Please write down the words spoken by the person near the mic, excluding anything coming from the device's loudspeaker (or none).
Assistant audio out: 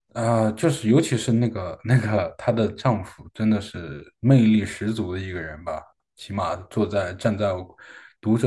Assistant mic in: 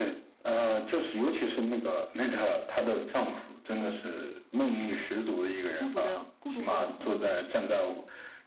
孤独的孤独和永恒的命题吧。嗯